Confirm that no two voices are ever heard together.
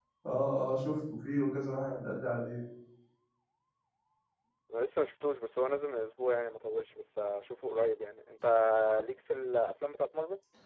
Yes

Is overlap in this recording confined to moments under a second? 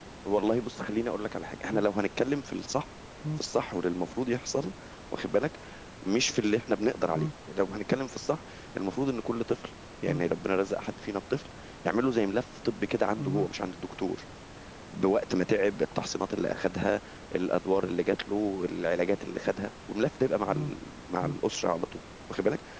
Yes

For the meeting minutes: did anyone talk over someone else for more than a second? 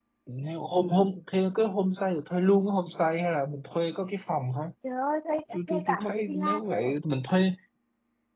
Yes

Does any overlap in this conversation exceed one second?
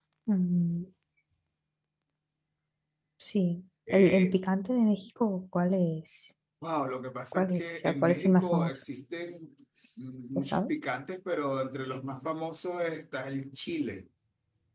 Yes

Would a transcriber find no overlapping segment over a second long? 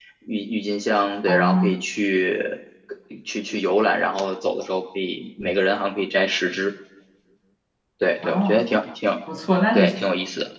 Yes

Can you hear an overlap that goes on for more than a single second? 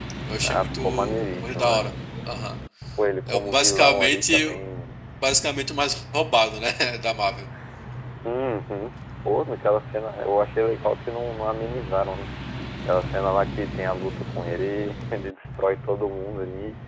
Yes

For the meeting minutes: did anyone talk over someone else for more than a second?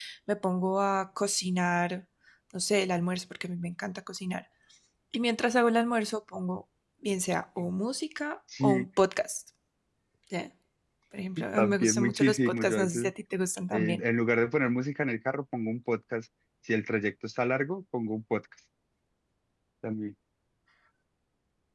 Yes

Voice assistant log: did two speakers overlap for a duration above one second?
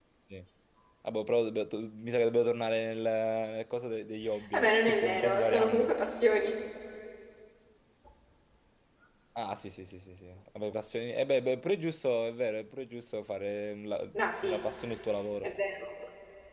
Yes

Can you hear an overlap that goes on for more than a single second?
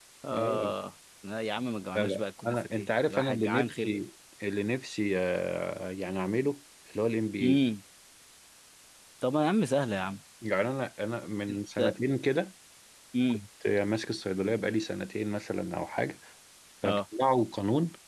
Yes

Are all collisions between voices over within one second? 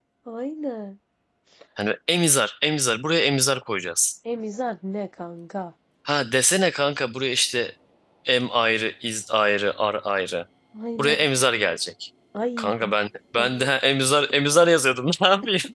Yes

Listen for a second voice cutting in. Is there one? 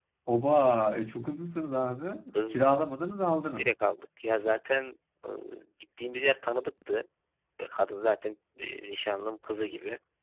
No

